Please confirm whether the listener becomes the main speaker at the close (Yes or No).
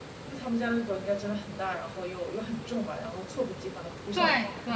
Yes